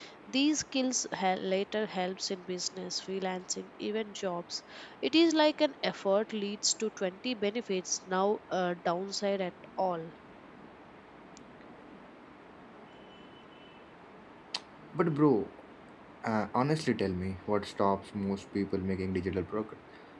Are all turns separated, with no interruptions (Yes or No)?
Yes